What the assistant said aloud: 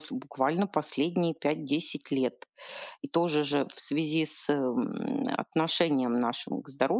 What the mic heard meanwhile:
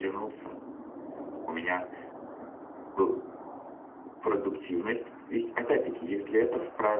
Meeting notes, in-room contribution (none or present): present